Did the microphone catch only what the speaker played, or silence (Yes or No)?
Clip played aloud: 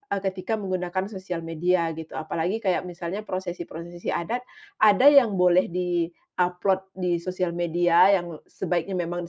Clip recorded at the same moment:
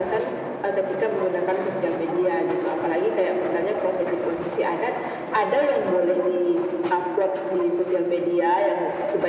Yes